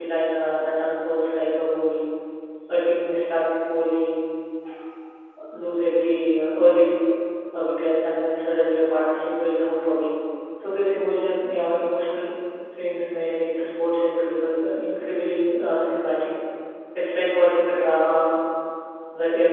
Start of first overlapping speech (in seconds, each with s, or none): none